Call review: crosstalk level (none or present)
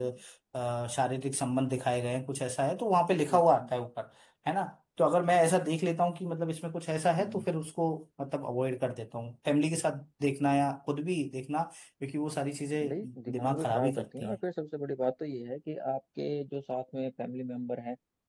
present